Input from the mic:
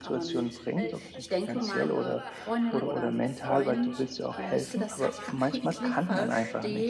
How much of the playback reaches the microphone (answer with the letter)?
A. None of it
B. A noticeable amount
B